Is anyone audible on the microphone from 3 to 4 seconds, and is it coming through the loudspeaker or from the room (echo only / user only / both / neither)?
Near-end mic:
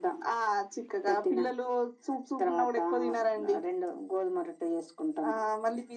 echo only